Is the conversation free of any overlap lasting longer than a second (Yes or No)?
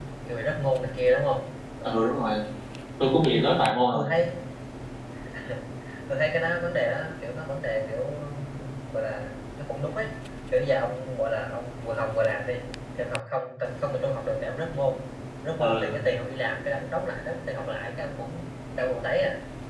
Yes